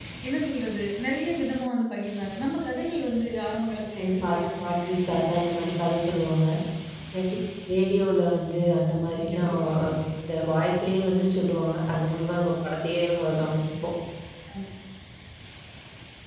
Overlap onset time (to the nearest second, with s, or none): 4 s